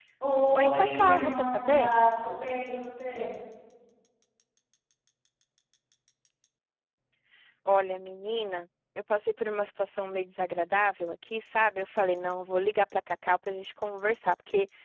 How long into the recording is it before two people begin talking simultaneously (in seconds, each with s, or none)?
0.5 s